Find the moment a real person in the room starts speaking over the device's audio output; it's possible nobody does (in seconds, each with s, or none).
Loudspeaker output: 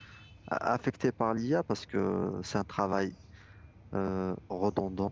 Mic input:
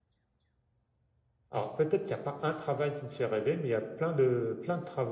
1.5 s